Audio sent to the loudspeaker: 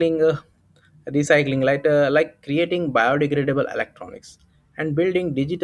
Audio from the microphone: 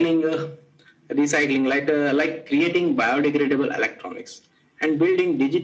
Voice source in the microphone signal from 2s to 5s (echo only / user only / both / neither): echo only